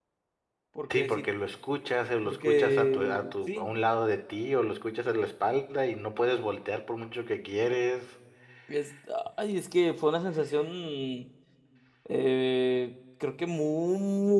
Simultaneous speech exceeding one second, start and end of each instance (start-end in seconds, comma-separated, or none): 2.2-3.7